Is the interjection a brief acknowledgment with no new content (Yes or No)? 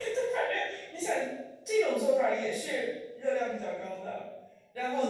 Yes